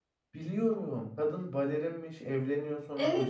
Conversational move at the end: listening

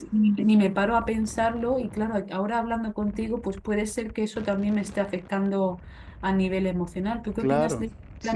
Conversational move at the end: taking over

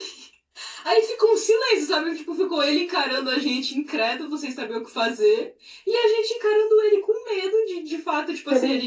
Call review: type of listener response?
listening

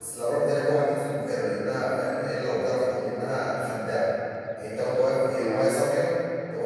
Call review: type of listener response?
listening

